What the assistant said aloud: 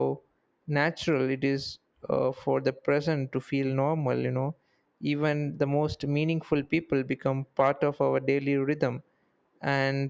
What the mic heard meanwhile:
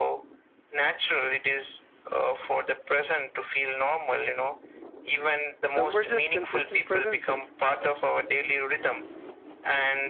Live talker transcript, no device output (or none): Some were just consistent presences.